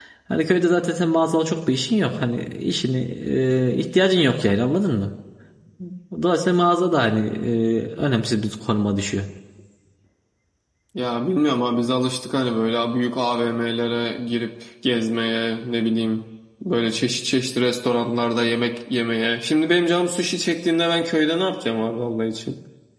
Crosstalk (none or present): none